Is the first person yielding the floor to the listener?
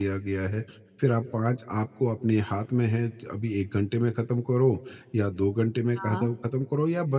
No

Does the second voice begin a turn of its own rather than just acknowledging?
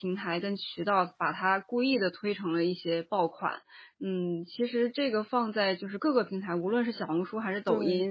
No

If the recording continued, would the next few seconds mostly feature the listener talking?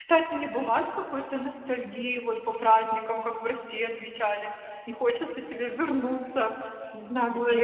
Yes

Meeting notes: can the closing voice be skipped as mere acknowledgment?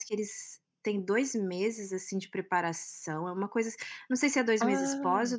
Yes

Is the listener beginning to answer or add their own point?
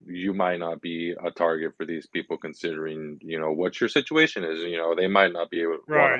Yes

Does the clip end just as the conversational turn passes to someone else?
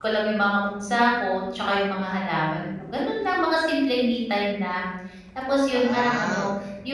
No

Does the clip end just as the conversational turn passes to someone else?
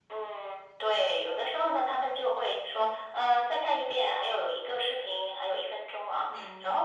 No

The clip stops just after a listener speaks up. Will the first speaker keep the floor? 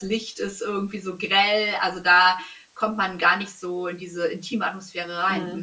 No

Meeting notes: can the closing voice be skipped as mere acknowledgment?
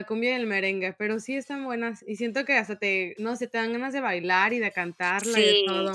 No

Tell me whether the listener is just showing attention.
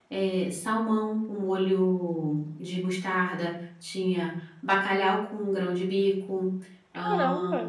No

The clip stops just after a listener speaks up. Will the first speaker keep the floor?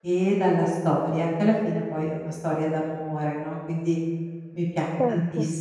Yes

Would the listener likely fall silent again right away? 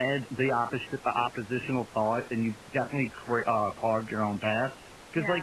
Yes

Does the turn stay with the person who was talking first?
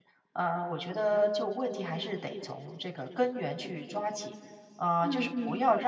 Yes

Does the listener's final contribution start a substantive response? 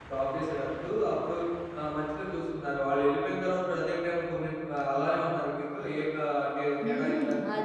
Yes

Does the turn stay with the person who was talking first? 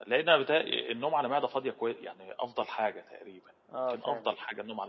Yes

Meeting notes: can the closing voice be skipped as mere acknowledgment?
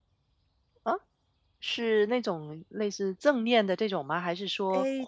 No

